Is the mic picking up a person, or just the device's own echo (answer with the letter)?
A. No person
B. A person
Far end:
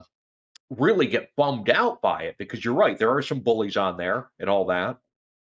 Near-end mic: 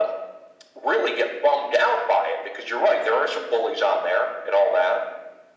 A